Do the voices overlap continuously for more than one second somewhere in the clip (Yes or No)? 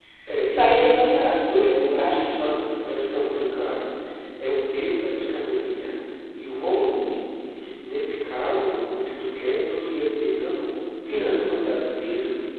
Yes